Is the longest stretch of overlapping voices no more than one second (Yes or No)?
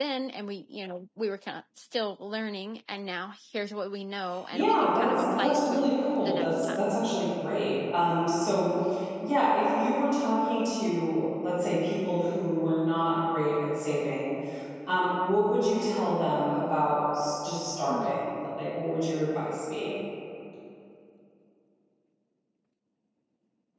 No